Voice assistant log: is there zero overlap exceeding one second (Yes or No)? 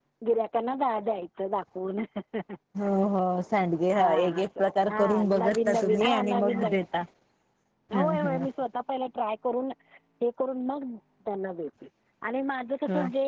No